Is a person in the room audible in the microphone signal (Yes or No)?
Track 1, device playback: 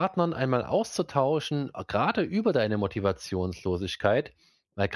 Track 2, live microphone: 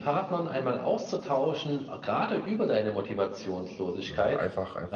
Yes